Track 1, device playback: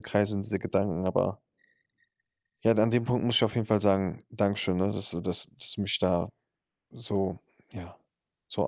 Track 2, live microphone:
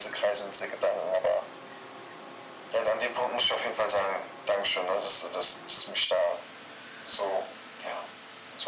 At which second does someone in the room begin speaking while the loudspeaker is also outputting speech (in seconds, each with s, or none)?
none